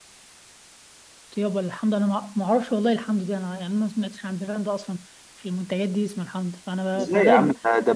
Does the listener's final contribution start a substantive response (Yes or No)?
Yes